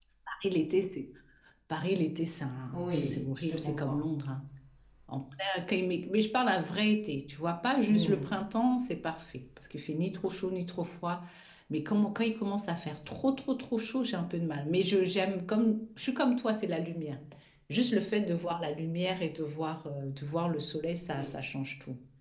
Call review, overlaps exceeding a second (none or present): present